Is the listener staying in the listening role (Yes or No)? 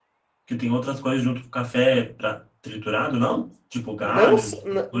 No